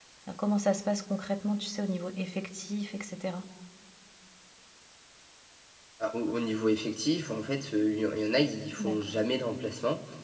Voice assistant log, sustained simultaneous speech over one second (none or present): none